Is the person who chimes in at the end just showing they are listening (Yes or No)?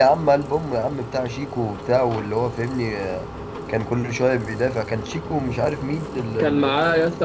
No